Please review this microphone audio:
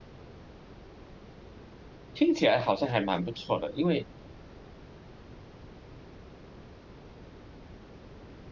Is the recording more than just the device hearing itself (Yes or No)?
Yes